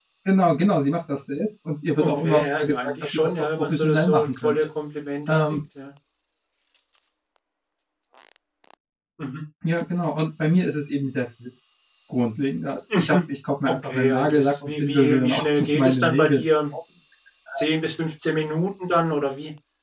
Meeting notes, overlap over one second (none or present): present